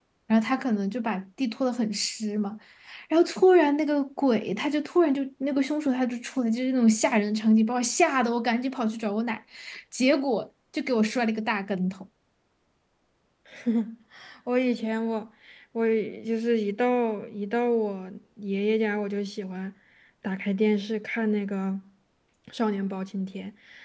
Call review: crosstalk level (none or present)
none